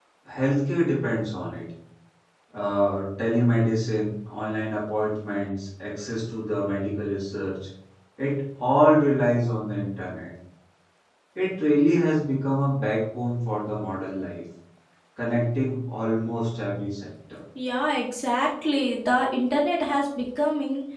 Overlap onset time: none

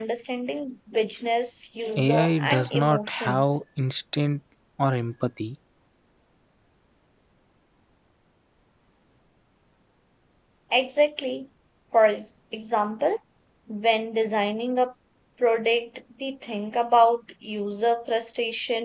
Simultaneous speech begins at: 2.0 s

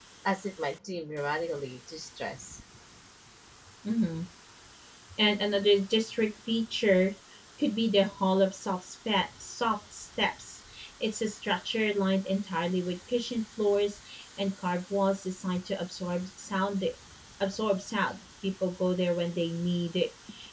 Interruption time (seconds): none

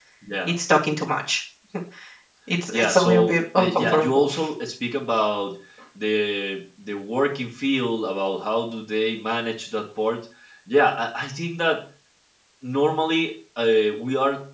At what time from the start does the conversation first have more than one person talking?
2.7 s

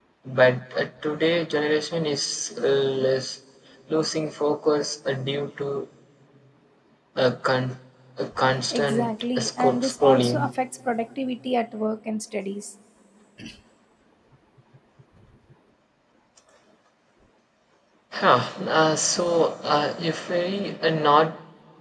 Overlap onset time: 8.7 s

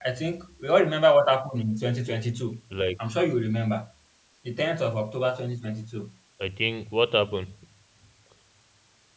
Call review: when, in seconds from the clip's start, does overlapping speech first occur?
none

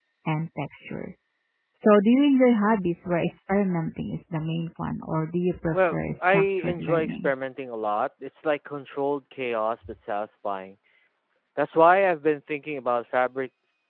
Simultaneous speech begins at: 5.7 s

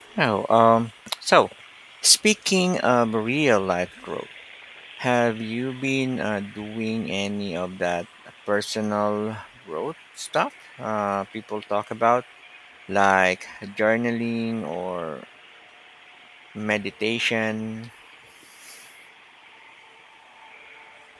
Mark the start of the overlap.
none

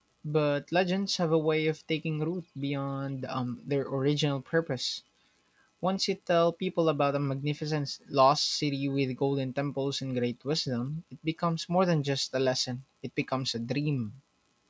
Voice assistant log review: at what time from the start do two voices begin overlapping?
none

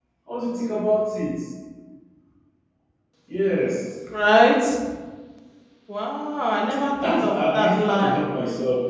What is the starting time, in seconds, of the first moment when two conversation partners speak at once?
7.0 s

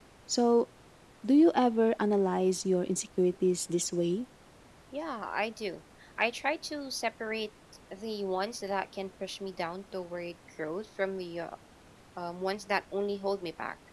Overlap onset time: none

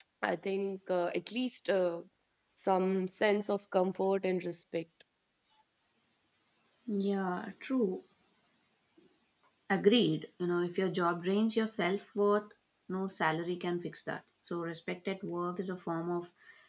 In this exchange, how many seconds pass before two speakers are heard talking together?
none

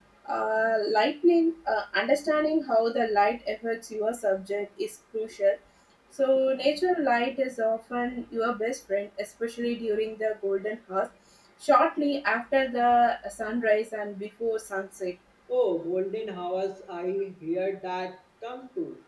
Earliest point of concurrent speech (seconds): none

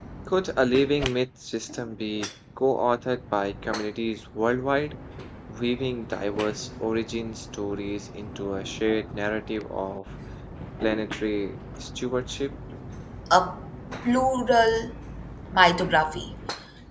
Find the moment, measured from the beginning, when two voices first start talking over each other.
none

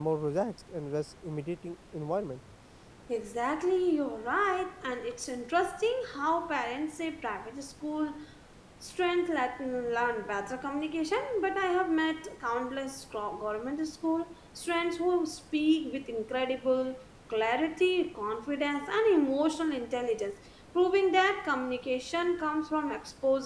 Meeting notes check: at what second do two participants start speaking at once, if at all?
none

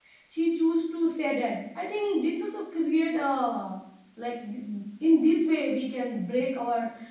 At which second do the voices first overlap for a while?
none

